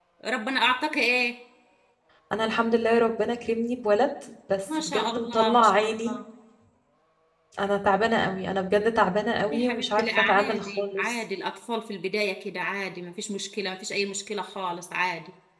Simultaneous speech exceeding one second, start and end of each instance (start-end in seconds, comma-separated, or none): 4.7-6.2, 9.5-11.2